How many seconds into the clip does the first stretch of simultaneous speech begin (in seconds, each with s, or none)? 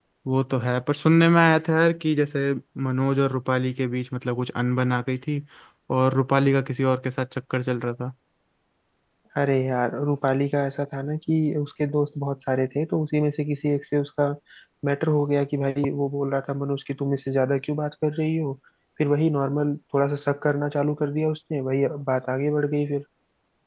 none